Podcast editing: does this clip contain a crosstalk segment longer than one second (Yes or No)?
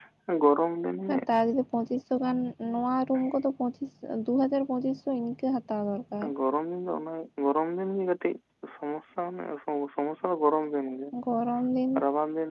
No